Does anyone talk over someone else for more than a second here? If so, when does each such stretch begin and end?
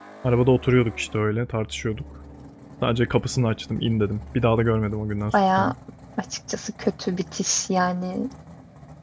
none

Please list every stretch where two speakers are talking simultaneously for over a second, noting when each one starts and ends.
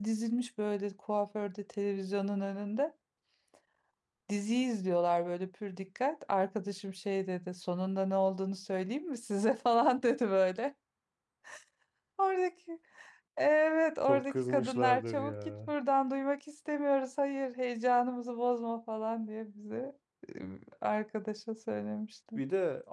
14.1-15.7

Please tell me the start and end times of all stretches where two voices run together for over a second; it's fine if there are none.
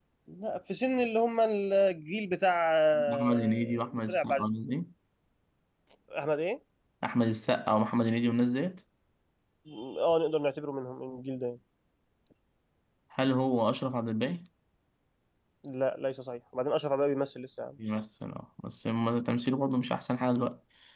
3.1-4.4

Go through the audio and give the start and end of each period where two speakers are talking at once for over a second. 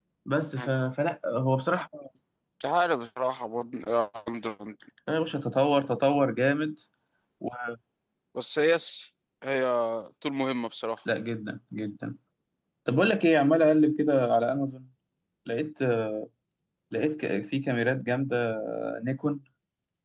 none

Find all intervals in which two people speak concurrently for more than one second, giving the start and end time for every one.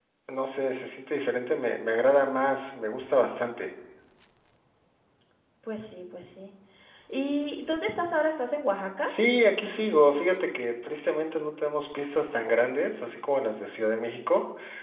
none

